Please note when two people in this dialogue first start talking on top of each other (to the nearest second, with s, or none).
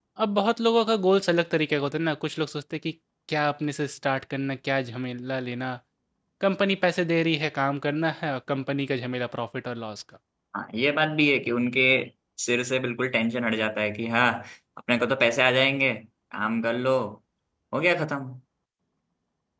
none